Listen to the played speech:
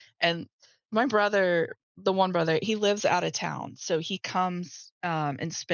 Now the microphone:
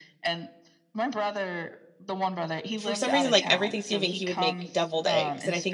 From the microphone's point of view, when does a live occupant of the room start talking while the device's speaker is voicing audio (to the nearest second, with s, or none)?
3 s